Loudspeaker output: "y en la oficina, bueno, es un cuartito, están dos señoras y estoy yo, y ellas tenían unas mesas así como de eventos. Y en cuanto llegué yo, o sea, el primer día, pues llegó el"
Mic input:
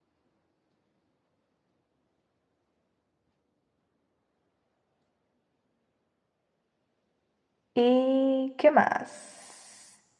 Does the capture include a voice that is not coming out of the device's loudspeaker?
Yes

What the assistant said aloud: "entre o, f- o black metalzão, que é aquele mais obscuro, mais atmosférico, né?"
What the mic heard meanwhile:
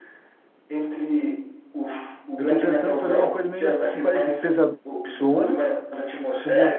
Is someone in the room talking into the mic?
Yes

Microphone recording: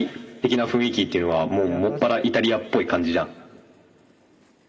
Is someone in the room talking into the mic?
Yes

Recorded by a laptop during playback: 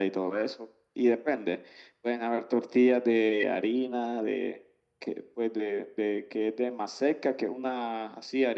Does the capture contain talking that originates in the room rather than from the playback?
No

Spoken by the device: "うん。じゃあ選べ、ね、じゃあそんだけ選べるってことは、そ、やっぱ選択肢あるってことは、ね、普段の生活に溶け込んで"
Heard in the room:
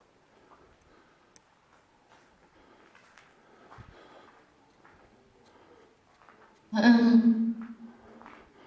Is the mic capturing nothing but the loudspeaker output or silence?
No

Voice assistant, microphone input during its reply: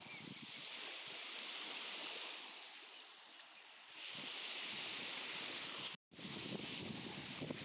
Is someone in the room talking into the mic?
No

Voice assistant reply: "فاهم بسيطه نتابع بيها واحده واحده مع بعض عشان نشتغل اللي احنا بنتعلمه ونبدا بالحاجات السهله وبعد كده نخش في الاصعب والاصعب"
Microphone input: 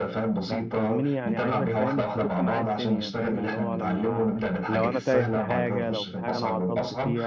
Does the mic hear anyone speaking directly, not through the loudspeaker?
Yes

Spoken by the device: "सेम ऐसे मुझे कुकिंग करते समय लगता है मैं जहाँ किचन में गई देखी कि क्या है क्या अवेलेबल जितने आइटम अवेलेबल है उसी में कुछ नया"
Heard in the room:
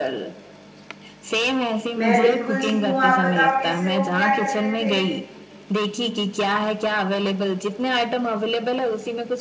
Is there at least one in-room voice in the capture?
Yes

